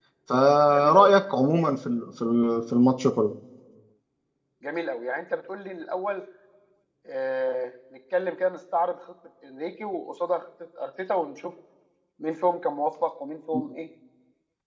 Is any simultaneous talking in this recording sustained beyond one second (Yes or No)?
No